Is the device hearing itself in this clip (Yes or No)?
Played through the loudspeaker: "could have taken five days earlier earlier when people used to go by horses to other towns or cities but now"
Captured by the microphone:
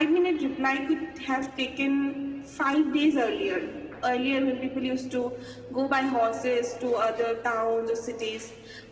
Yes